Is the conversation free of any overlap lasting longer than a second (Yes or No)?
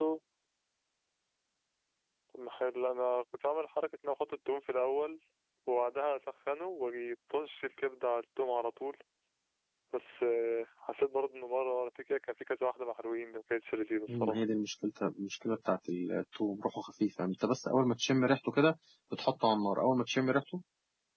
Yes